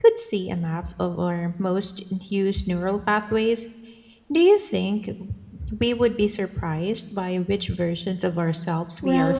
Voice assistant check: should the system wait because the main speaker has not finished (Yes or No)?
No